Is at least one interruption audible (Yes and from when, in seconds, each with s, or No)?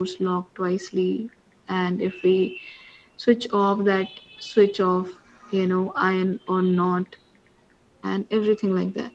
No